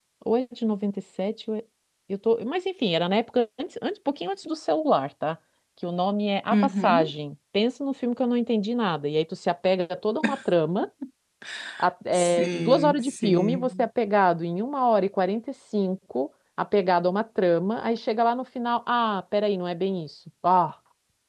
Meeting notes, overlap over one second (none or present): present